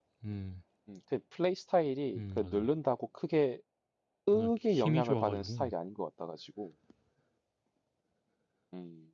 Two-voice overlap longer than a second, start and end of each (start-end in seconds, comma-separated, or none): 4.3-5.6